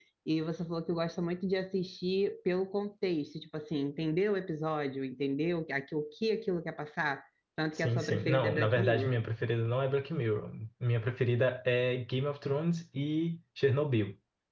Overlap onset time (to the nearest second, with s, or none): 8 s